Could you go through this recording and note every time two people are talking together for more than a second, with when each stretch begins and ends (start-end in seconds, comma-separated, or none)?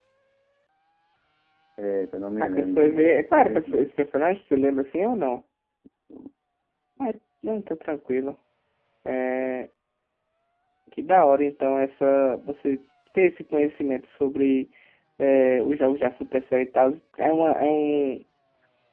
2.4-3.9